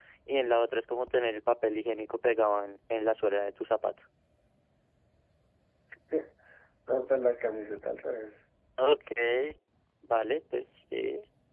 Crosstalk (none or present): none